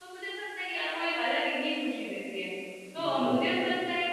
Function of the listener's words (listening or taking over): listening